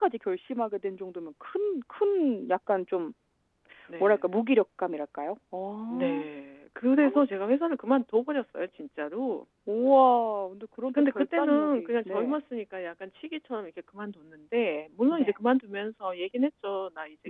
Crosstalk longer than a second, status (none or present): present